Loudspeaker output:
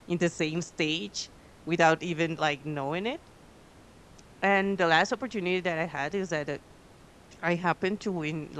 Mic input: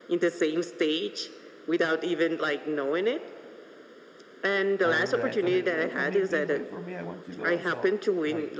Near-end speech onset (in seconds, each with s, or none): 4.8 s